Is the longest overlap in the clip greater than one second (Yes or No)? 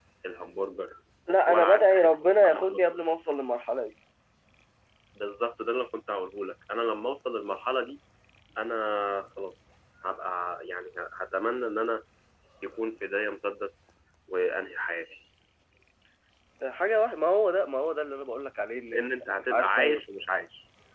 Yes